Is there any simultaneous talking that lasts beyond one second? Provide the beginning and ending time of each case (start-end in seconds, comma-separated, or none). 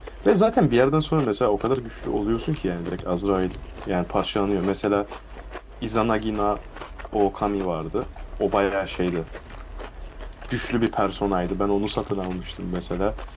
none